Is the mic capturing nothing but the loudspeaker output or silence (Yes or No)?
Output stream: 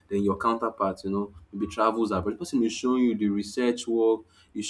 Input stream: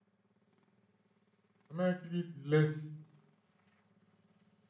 No